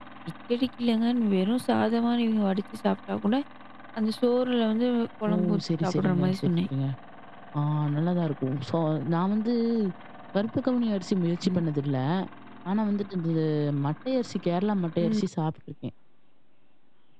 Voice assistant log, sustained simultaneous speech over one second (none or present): present